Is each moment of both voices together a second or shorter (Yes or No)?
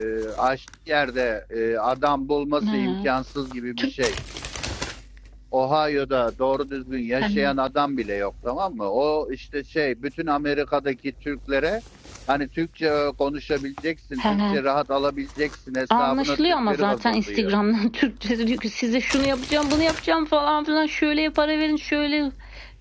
No